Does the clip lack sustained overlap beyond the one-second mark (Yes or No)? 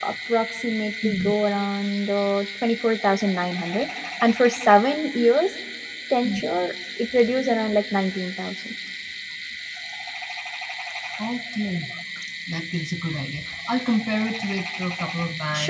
Yes